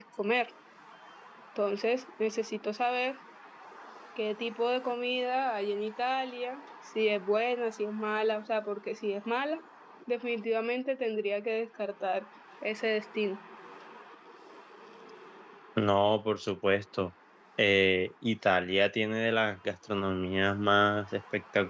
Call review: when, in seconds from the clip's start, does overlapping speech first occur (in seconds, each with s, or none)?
none